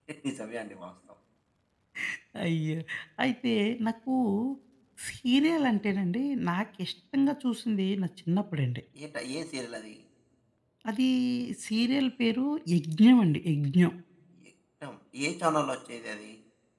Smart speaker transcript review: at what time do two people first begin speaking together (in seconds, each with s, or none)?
none